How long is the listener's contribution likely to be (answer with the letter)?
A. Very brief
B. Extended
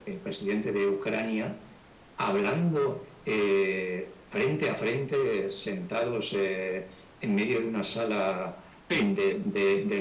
A